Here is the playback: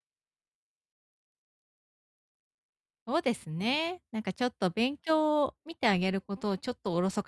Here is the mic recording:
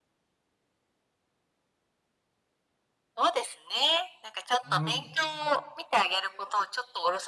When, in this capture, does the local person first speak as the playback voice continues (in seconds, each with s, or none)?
4.6 s